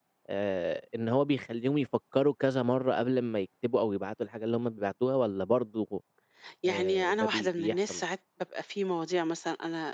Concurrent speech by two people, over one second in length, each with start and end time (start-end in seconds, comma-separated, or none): 6.7-8.0